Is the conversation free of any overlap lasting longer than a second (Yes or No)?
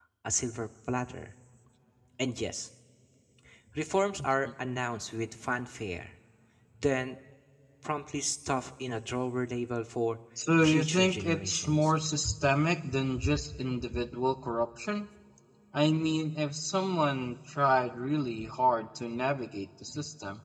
No